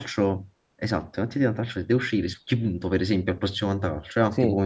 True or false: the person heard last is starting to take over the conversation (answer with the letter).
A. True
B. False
B